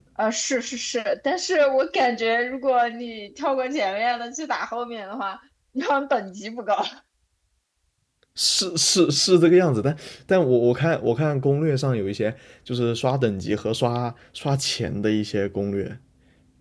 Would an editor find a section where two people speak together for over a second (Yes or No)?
No